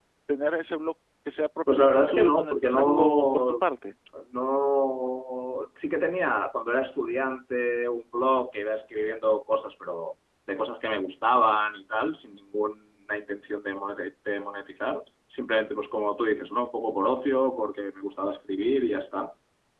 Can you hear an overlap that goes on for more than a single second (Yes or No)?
Yes